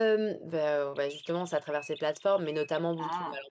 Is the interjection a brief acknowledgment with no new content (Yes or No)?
Yes